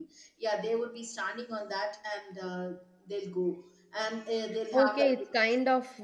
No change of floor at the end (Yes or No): No